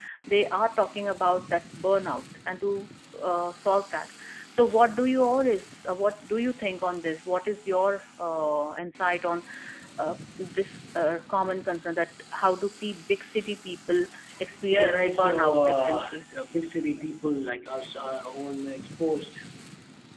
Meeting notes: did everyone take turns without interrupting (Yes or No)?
No